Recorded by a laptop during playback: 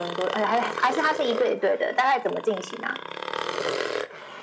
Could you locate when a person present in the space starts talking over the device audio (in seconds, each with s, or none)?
none